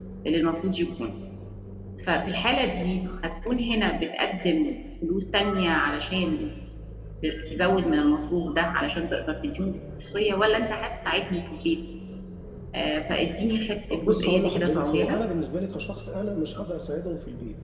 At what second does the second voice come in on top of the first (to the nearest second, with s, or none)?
14 s